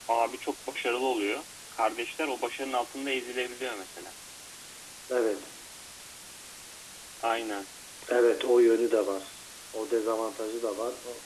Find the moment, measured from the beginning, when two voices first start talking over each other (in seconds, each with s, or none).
none